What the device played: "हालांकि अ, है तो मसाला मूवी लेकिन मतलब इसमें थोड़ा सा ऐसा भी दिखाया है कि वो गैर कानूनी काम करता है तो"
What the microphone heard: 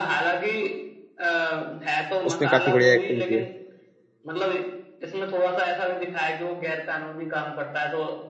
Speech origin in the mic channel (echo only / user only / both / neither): both